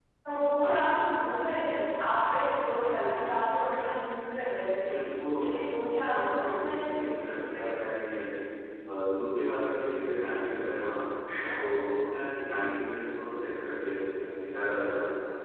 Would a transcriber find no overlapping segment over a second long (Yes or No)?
No